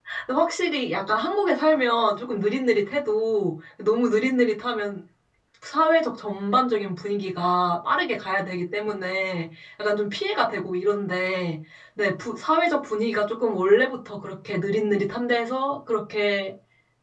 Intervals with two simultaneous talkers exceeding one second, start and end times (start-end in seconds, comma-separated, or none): none